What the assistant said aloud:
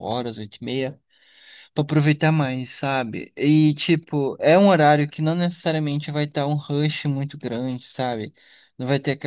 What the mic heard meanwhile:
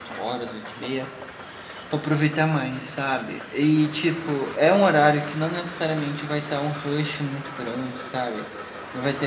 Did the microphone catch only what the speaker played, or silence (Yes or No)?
Yes